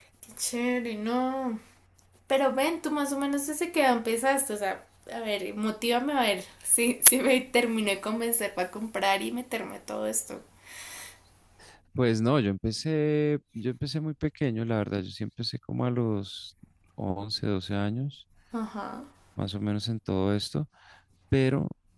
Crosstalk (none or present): none